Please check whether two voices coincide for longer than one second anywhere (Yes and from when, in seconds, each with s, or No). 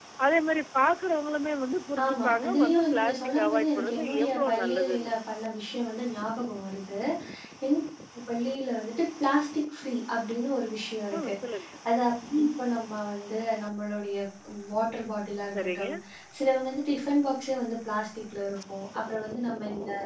Yes, from 2.0 s